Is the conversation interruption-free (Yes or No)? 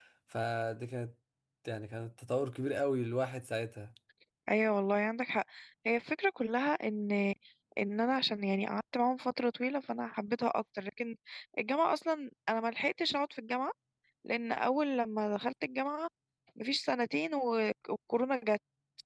Yes